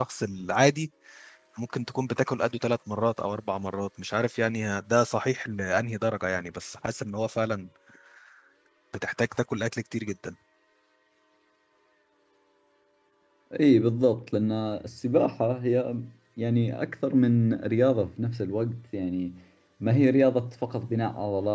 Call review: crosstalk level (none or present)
none